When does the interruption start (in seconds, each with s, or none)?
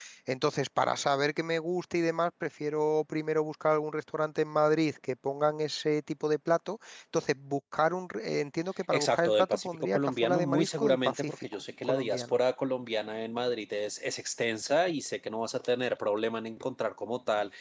8.9 s